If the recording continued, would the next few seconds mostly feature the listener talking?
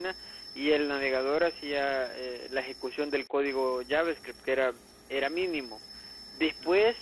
No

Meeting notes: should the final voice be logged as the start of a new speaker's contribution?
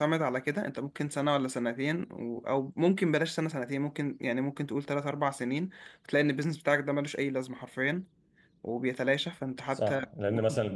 Yes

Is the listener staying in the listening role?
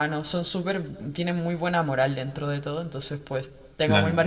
Yes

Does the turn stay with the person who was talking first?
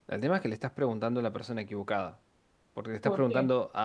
Yes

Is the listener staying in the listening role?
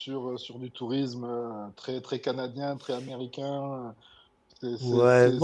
No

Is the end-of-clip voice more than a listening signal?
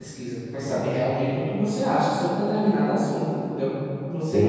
Yes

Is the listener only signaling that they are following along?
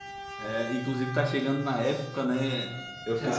Yes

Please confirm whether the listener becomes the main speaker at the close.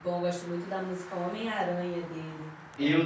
Yes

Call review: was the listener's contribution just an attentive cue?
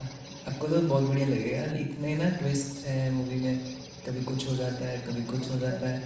Yes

